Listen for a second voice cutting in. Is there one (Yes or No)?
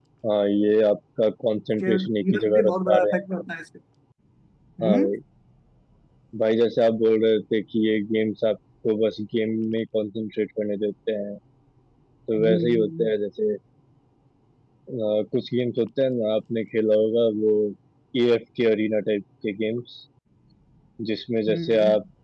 Yes